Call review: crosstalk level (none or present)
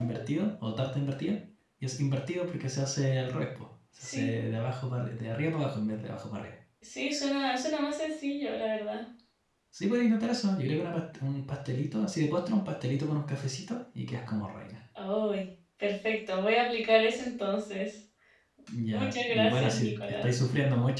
present